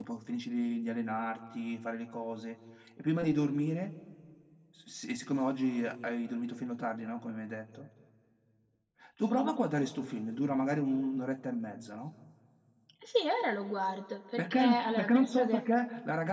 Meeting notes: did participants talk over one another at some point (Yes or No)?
Yes